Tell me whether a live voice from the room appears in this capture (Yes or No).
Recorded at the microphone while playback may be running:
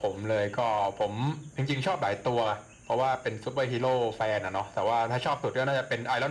No